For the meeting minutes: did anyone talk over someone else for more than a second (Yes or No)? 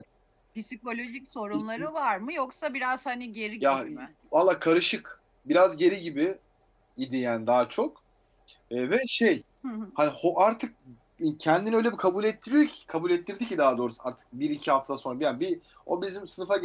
No